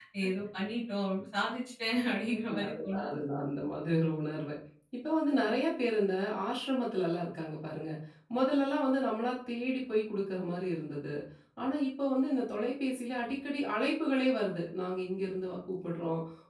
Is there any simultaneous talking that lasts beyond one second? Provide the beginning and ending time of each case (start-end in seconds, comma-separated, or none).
none